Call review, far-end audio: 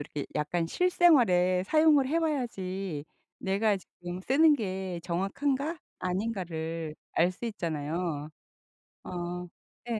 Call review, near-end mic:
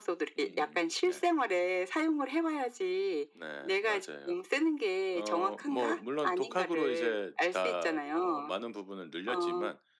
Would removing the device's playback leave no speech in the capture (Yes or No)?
No